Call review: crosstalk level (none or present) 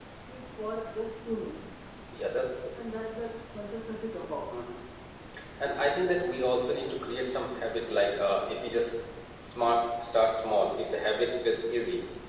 none